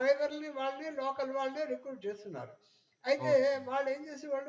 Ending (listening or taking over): listening